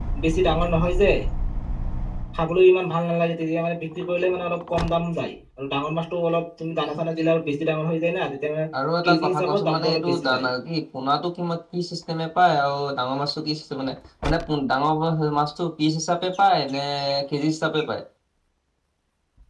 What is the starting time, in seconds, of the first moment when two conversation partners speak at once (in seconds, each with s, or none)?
9.0 s